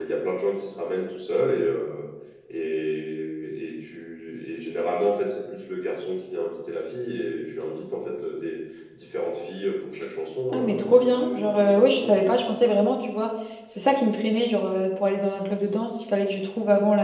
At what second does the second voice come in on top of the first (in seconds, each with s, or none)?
10.5 s